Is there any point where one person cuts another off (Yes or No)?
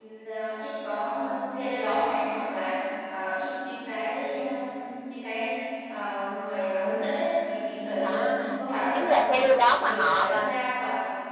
Yes